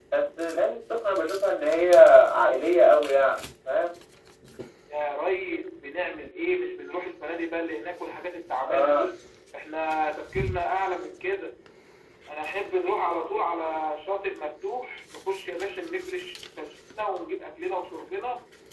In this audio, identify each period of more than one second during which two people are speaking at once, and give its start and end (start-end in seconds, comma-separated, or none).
none